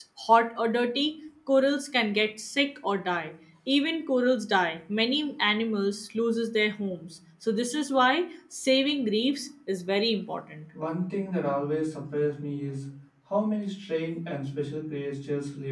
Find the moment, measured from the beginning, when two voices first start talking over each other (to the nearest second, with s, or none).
none